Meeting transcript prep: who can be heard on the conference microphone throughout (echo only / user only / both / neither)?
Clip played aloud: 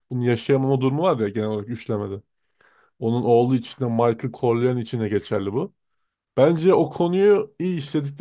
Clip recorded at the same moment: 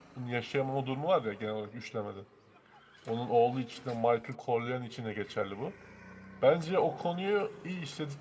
echo only